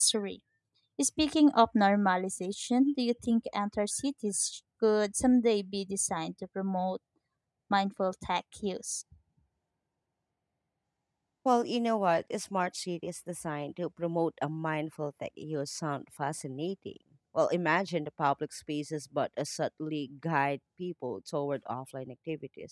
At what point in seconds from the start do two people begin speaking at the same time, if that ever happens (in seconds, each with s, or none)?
none